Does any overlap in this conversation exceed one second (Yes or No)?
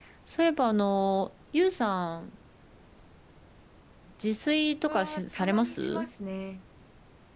Yes